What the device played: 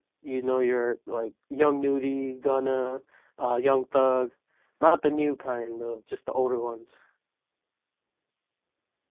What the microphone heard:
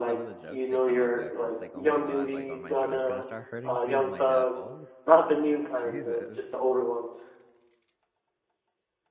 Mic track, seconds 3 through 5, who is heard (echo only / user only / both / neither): both